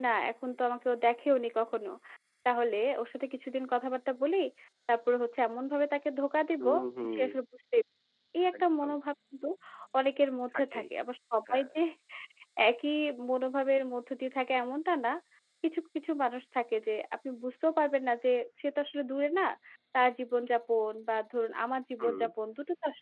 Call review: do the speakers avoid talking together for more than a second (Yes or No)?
Yes